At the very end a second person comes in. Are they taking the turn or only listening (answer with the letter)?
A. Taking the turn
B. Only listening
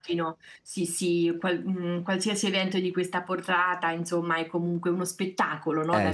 A